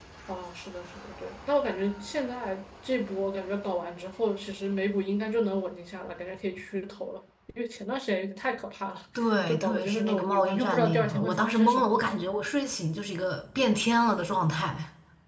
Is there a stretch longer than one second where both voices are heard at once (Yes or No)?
Yes